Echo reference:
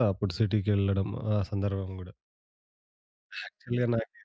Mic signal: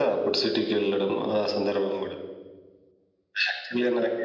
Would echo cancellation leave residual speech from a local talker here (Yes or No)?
No